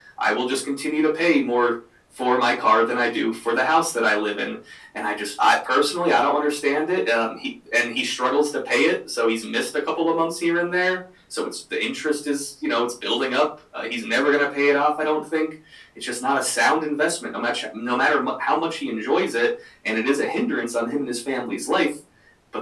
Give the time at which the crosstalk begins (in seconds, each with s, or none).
none